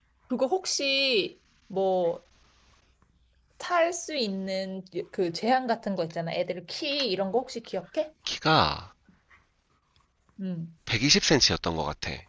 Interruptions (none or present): none